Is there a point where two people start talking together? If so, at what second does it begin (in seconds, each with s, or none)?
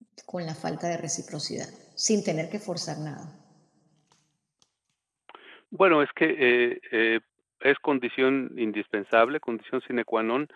none